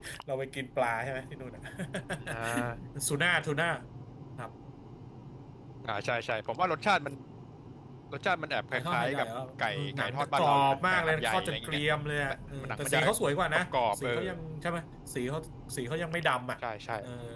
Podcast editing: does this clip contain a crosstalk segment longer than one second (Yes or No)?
Yes